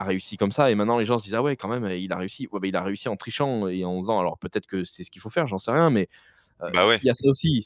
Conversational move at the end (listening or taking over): listening